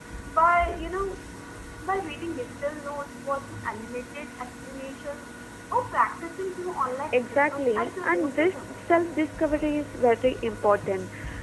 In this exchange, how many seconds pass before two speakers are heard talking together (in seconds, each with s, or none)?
7.1 s